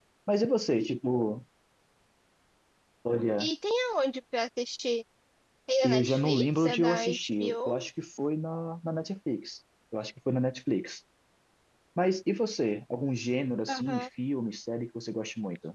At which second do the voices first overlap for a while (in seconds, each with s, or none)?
5.8 s